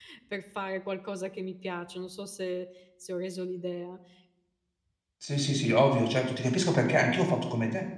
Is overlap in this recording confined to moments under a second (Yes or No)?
Yes